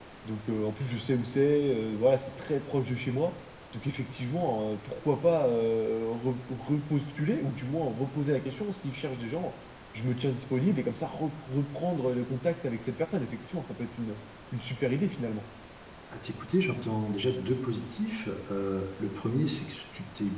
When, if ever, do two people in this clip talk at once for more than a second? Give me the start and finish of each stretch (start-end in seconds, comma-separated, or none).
none